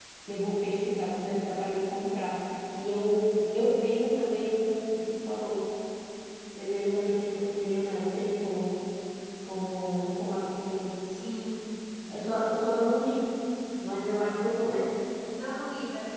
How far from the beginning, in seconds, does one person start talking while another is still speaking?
none

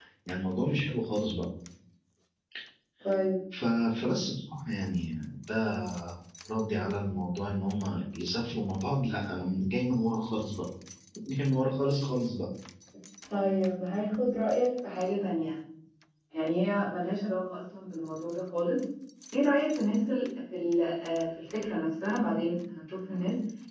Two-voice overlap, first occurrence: none

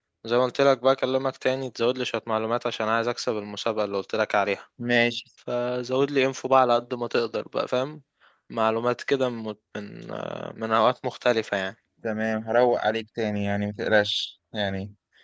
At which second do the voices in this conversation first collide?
none

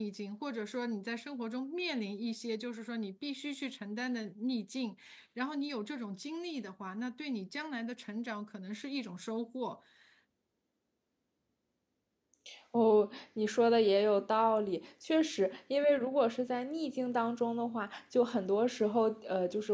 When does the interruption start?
none

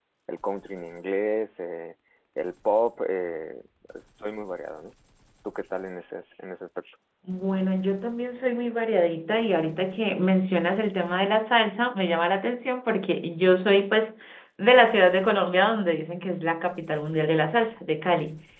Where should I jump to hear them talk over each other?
none

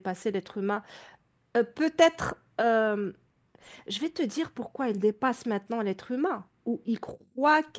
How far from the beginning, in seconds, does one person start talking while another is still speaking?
none

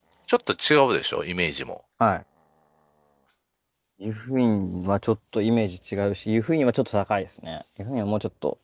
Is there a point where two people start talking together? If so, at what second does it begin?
none

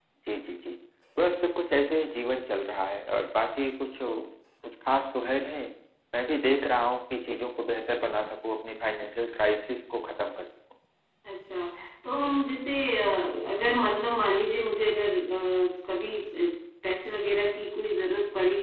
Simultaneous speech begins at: none

